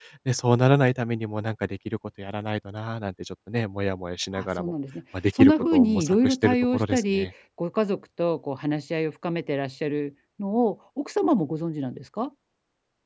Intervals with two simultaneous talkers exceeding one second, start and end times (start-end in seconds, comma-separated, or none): 5.4-7.3